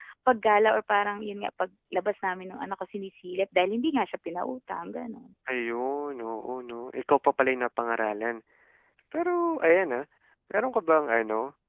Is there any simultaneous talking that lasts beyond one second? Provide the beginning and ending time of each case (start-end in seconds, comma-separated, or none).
none